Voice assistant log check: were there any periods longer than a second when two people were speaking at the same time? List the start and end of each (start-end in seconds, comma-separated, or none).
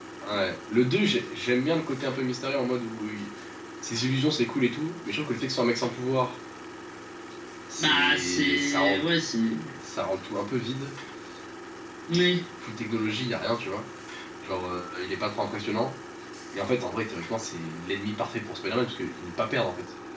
7.8-9.1